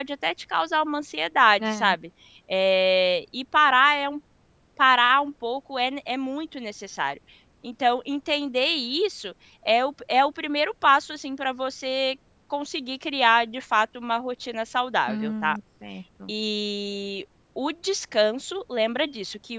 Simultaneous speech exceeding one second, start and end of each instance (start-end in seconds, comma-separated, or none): none